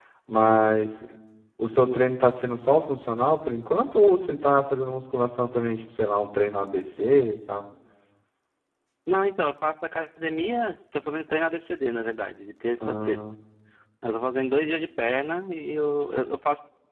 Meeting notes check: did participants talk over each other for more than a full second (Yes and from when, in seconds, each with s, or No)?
No